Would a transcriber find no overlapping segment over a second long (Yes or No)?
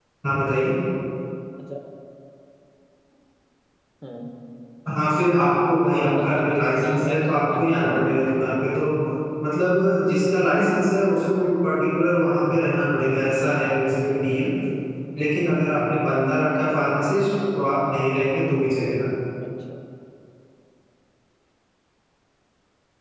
No